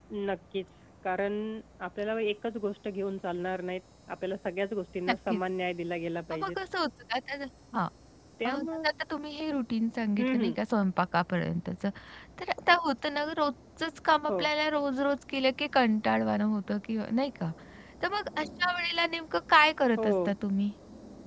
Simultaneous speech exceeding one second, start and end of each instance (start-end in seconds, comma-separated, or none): none